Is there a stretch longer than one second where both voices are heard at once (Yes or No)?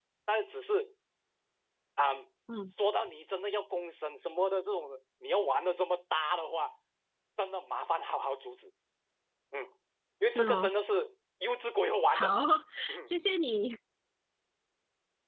No